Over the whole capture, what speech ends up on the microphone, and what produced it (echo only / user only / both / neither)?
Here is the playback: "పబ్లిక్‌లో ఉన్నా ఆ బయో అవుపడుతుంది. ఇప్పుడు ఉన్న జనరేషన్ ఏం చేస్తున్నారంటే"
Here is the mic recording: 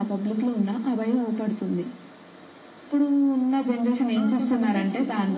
both